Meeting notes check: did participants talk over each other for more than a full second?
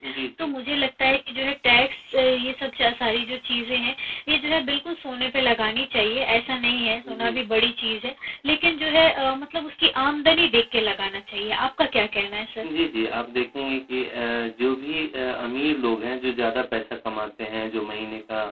No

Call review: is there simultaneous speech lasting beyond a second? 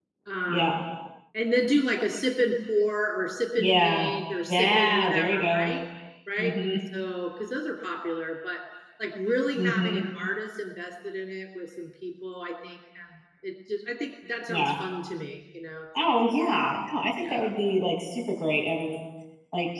Yes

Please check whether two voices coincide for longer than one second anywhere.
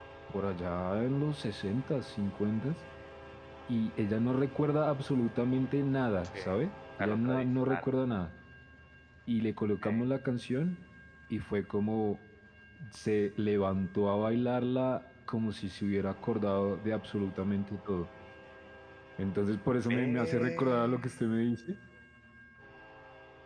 Yes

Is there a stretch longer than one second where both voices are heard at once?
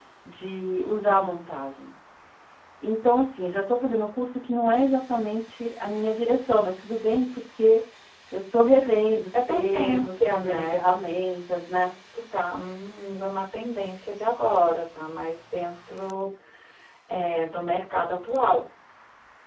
Yes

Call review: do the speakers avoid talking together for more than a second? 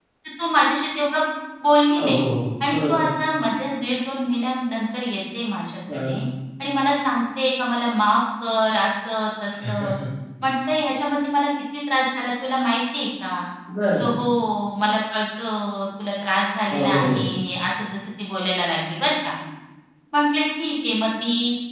Yes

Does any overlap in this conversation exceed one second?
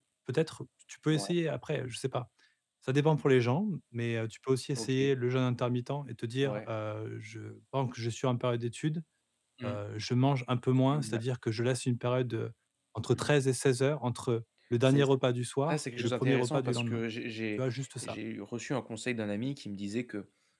Yes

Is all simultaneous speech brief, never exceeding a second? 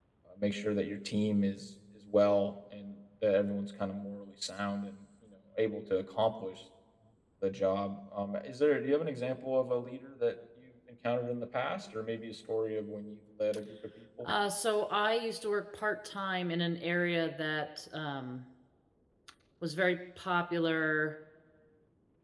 Yes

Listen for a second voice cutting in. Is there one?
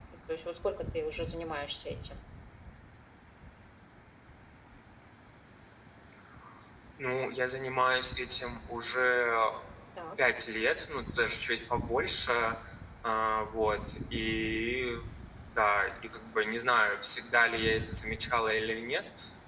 No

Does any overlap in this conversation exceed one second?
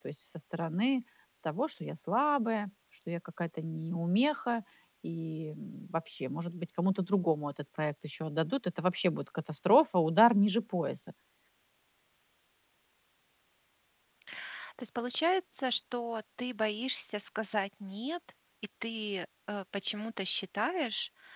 No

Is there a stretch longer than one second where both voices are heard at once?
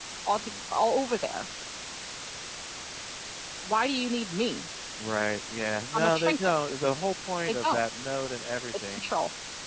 No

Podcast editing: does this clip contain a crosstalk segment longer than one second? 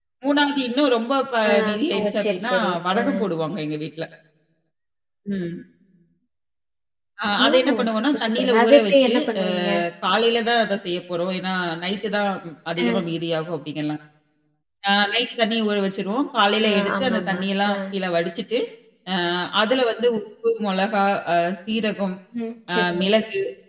Yes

